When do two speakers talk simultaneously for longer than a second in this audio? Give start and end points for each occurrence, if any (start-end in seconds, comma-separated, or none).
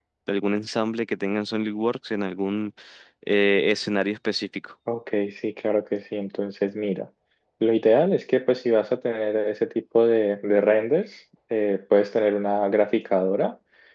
none